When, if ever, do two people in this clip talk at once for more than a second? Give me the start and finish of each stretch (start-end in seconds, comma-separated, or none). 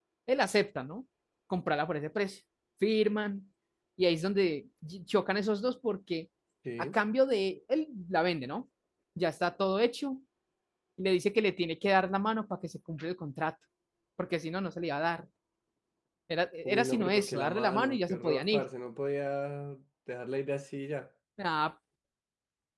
16.6-18.6